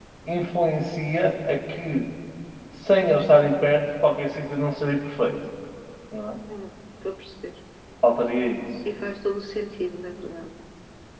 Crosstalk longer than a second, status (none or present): none